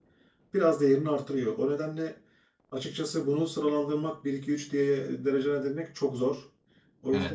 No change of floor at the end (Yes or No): No